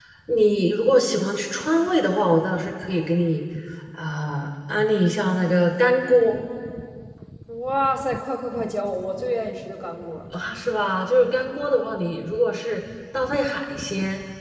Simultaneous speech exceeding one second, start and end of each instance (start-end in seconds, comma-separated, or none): none